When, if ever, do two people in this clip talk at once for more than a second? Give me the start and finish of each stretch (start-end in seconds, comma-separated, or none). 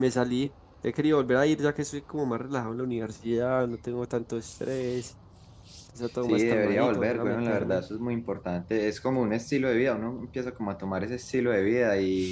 6.3-7.8